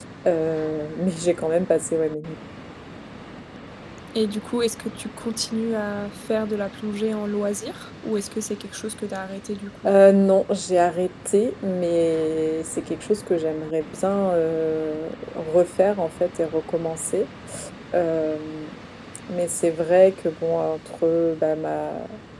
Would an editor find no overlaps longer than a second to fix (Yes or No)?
Yes